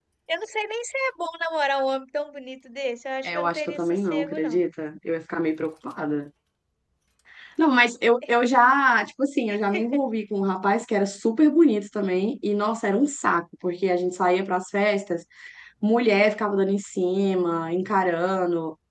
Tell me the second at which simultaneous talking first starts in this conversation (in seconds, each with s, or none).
3.2 s